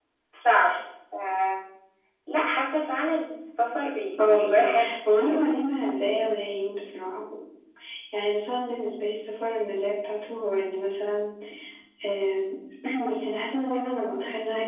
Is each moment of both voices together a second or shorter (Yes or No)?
No